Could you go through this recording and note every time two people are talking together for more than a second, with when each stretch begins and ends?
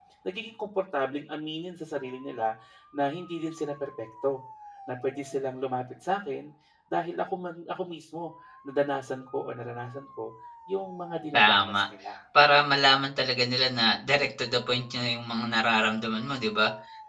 none

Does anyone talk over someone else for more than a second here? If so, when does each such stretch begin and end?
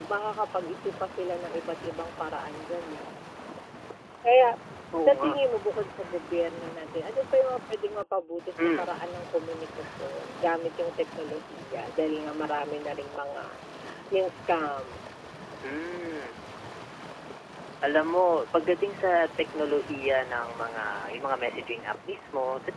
none

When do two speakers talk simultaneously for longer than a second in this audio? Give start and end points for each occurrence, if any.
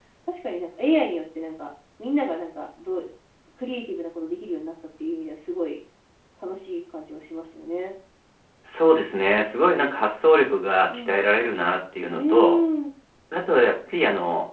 none

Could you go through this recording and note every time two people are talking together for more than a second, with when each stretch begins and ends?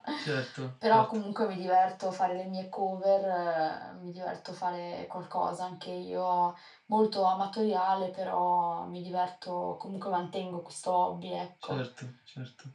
none

